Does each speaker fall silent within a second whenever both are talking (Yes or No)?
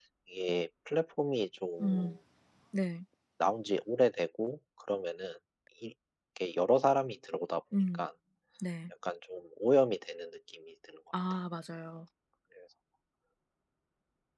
Yes